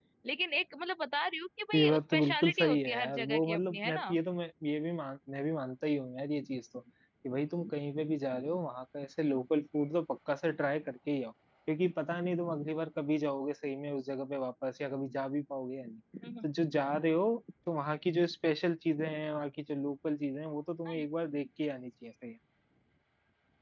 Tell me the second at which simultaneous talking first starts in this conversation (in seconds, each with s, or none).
1.7 s